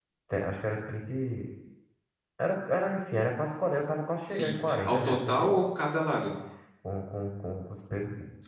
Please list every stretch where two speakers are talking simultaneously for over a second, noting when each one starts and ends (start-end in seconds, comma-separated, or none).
4.3-5.6